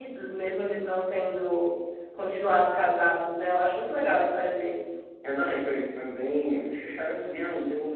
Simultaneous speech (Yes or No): No